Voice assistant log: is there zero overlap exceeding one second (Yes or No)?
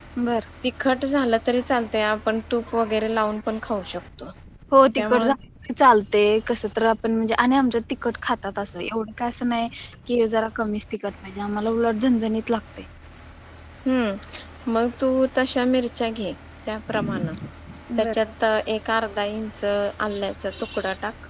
Yes